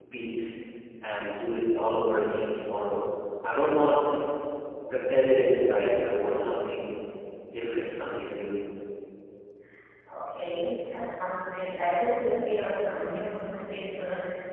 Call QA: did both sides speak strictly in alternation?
Yes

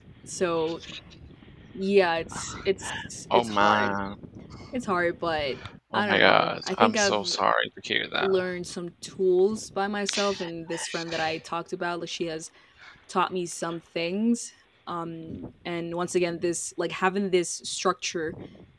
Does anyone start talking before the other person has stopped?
Yes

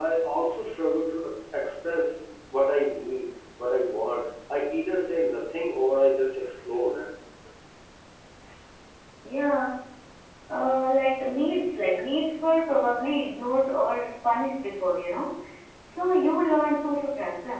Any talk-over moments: No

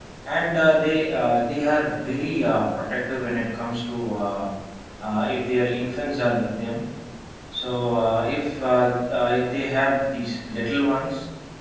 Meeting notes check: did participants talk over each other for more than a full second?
No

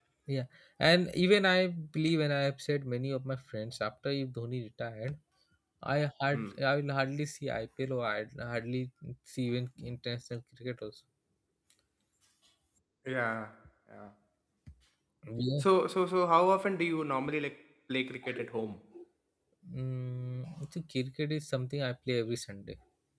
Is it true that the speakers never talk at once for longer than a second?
Yes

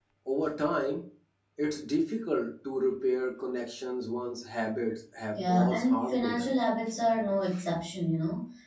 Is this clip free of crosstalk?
No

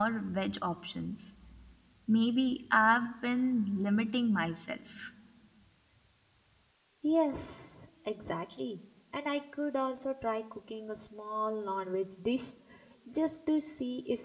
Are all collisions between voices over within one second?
Yes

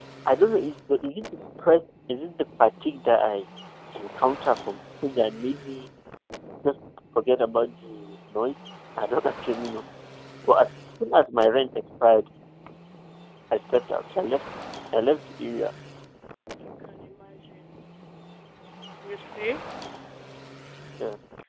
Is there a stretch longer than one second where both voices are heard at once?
No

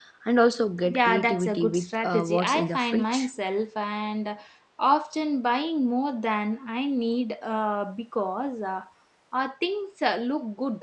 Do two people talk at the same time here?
Yes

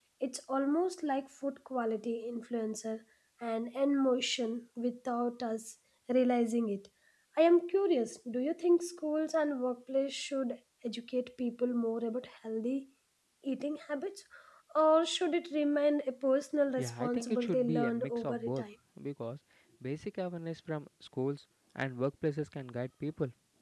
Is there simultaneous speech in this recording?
Yes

